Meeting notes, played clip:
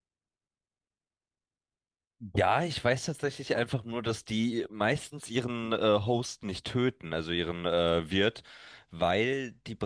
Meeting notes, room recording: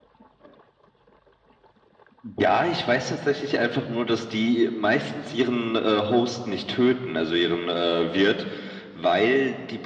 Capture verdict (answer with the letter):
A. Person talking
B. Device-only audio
B